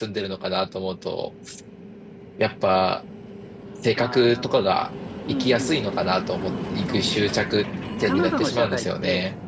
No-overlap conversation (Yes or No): No